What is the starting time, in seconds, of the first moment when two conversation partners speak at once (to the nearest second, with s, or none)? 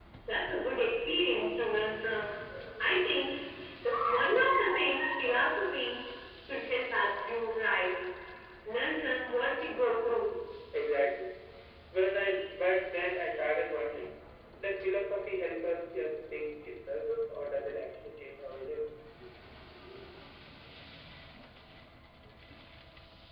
none